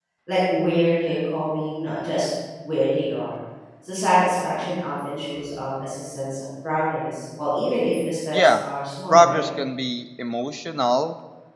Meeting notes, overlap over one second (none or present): none